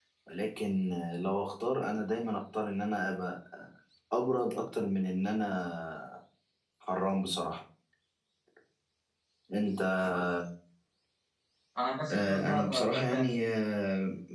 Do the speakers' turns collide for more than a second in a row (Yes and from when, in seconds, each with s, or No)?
Yes, from 12.1 s